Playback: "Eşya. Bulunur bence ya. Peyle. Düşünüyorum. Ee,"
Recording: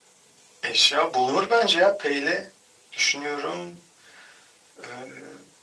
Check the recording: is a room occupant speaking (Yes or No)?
No